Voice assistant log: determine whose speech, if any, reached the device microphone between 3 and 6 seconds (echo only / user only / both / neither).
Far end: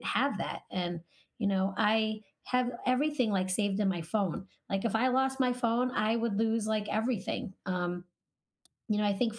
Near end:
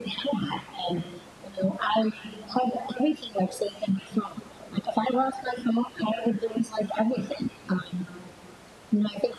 echo only